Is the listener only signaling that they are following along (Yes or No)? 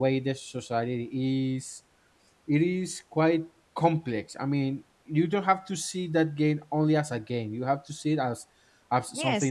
No